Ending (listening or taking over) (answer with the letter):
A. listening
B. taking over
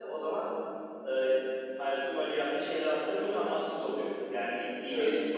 A